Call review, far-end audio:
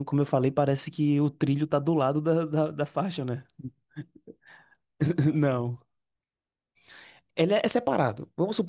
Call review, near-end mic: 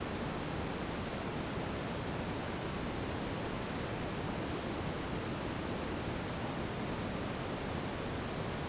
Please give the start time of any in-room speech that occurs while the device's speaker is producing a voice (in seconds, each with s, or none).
none